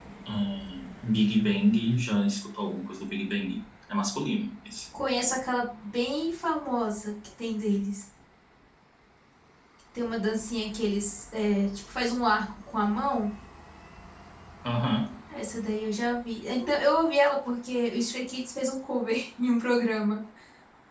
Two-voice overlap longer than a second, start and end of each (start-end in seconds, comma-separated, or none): none